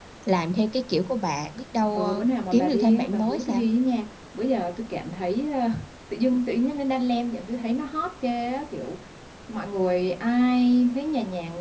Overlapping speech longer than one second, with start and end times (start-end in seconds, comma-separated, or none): 1.9-3.6